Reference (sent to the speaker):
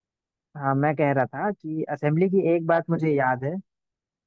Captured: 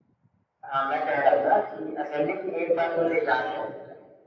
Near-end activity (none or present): none